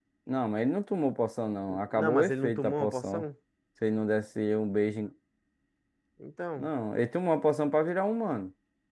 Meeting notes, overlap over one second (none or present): present